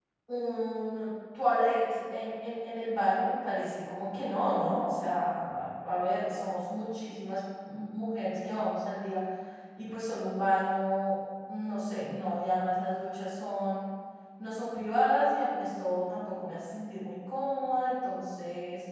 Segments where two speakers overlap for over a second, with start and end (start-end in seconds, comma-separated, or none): none